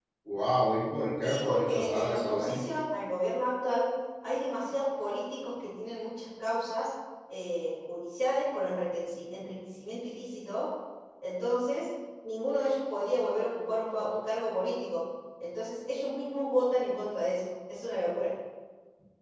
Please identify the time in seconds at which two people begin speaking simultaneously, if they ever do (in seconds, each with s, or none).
1.2 s